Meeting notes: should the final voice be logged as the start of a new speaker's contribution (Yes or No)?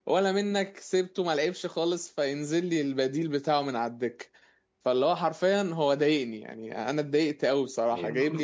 Yes